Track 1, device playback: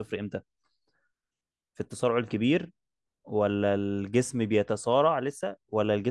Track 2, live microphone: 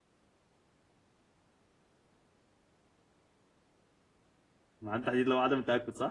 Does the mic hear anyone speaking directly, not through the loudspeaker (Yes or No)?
Yes